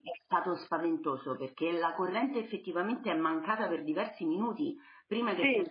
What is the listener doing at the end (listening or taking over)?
listening